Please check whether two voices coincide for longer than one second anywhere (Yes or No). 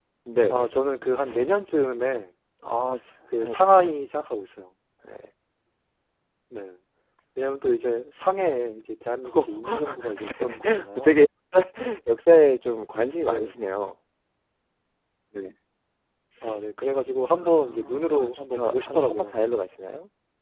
Yes